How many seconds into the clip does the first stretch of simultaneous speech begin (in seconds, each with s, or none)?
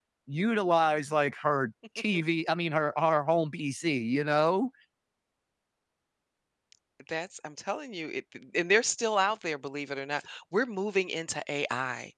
none